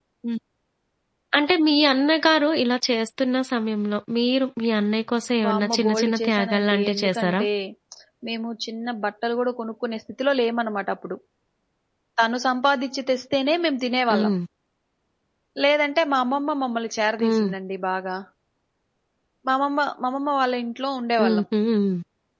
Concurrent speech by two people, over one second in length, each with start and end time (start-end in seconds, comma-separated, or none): 5.4-7.4